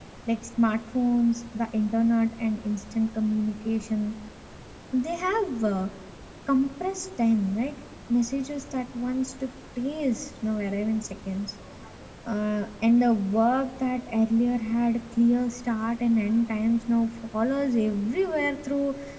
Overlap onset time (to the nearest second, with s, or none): none